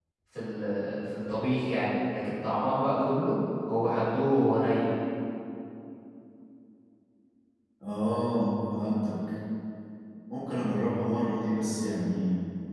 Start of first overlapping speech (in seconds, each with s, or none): none